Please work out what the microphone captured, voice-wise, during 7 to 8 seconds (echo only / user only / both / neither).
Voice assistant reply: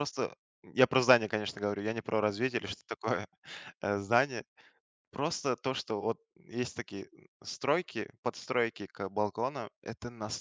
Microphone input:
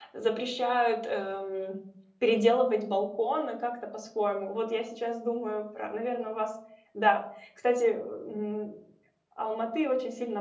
user only